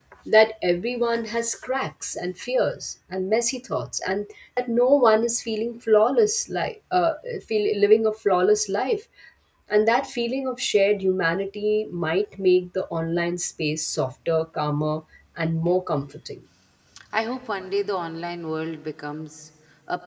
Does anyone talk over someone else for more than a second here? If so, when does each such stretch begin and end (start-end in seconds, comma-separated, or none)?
none